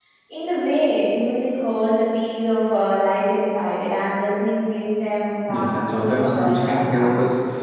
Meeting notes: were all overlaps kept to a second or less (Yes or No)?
No